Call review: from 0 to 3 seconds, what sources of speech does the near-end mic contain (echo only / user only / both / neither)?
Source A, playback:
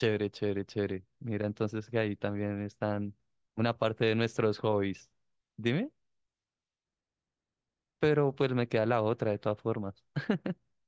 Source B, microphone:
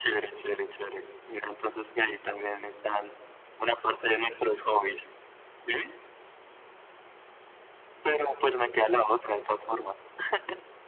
echo only